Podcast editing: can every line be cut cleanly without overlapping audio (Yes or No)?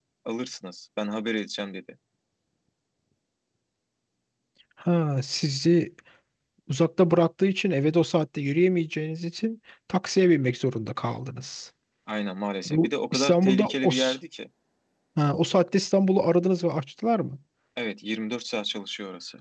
No